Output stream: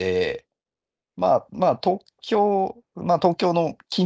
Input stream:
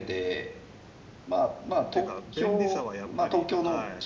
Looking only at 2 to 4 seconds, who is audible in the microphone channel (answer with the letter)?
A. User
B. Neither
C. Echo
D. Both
D